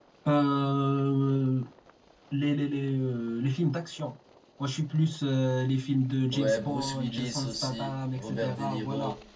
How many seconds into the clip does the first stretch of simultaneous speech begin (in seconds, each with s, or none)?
6.3 s